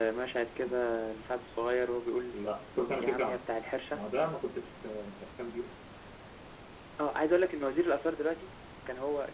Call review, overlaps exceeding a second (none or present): none